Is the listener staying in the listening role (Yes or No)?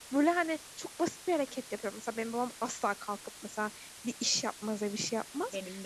Yes